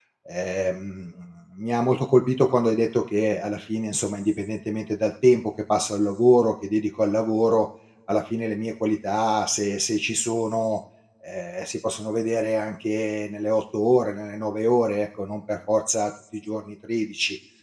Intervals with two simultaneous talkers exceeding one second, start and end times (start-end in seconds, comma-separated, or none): none